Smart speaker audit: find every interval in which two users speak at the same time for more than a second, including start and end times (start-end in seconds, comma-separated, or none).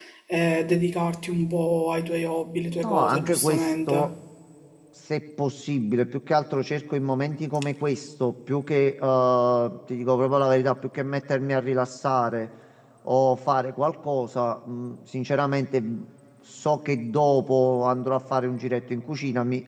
2.7-4.1